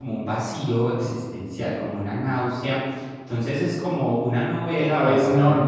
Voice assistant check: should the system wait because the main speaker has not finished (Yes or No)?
No